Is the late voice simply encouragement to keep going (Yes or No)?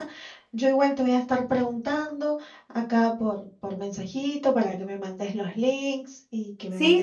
No